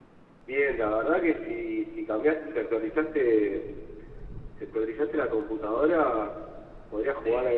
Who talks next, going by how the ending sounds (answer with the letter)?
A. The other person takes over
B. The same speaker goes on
B